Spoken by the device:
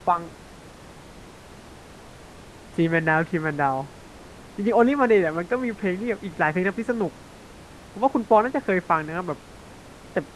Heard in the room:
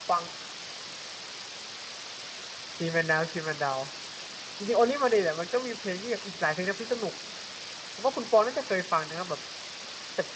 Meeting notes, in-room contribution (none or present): none